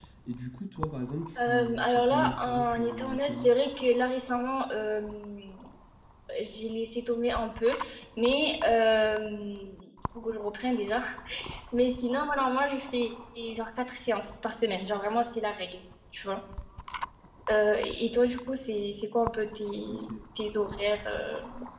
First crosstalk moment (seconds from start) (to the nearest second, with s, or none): 1 s